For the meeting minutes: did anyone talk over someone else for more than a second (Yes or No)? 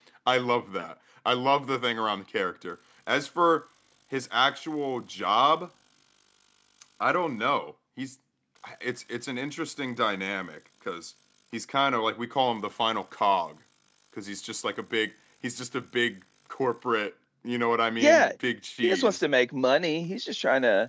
No